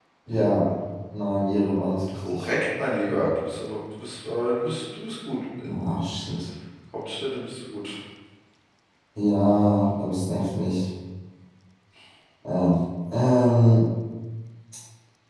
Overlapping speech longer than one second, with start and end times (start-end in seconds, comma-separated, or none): none